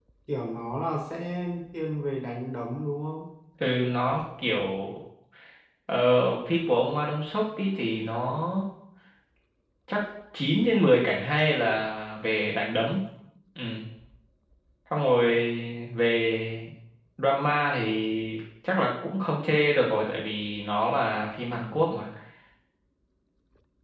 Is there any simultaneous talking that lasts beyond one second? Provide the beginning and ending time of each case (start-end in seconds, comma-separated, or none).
none